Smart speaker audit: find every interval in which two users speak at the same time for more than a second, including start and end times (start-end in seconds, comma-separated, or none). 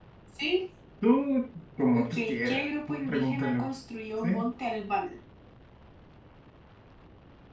1.9-3.7